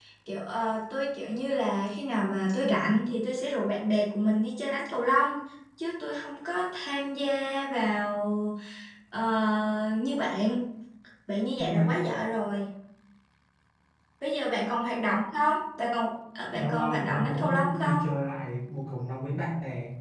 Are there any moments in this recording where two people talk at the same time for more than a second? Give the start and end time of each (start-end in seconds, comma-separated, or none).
16.5-18.1